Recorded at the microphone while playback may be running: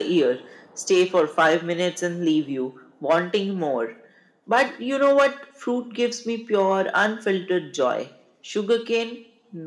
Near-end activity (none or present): none